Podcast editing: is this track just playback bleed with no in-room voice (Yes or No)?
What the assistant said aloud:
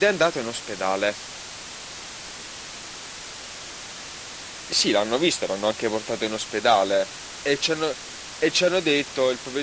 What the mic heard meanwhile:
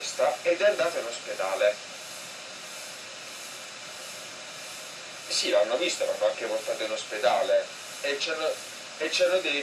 Yes